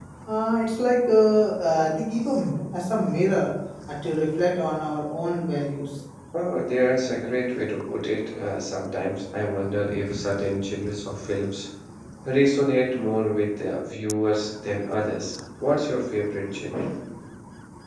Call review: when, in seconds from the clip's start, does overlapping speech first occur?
none

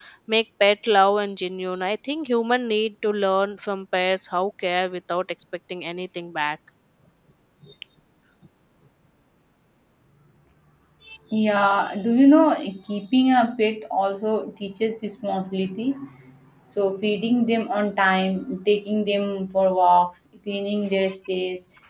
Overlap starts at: none

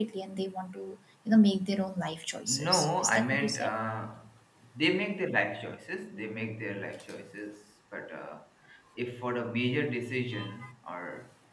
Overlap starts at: 2 s

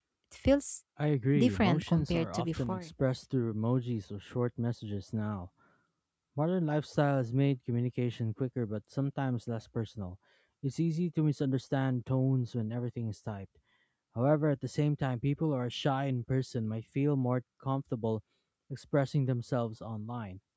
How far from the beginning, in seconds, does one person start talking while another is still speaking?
1 s

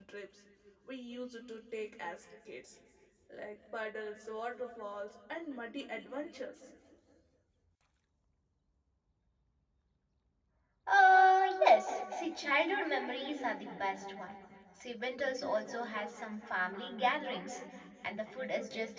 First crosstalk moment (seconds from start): none

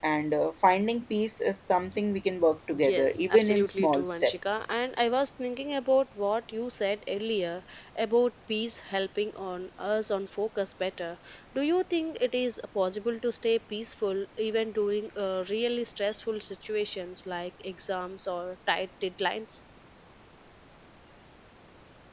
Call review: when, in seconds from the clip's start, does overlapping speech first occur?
3 s

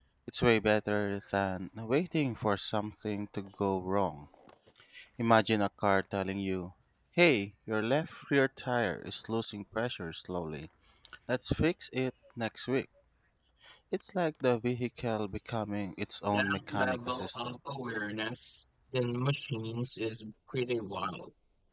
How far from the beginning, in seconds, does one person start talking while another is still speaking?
16 s

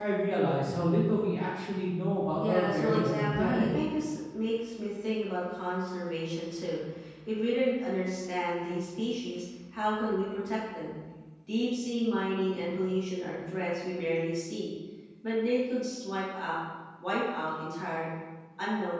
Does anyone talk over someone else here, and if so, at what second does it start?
2 s

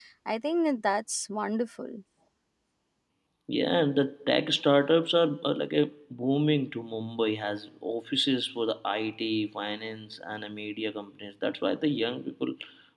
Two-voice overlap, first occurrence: none

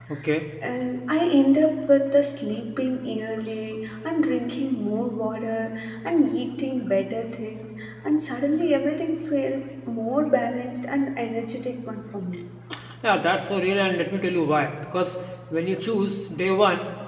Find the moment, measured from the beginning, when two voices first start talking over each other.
none

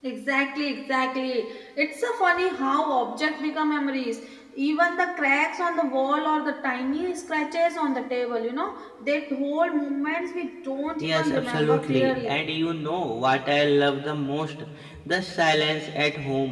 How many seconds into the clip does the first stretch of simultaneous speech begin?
11 s

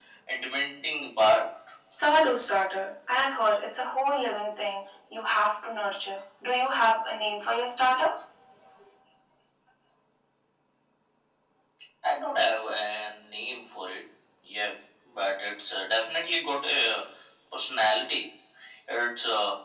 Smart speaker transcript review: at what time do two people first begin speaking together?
none

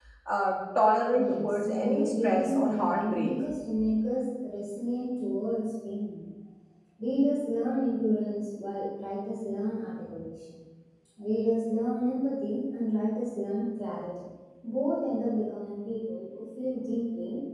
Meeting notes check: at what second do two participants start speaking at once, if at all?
1 s

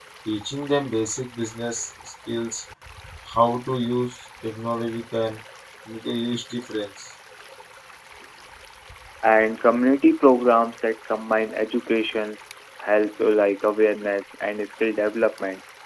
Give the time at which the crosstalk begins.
none

